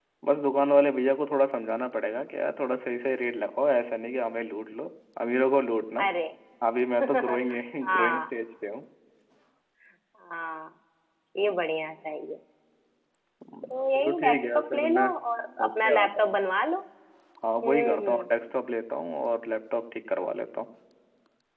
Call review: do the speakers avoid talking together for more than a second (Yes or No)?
No